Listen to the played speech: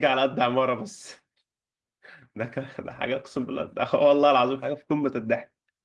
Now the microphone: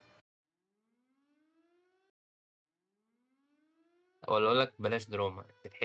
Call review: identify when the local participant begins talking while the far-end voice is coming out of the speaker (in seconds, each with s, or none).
4.3 s